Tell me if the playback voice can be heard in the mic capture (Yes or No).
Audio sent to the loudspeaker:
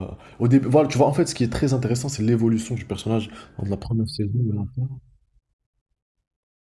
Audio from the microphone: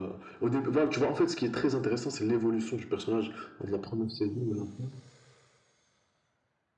Yes